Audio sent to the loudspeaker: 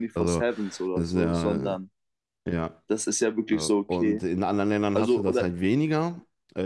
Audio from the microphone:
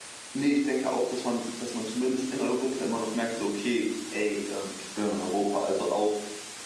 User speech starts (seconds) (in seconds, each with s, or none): 0.3 s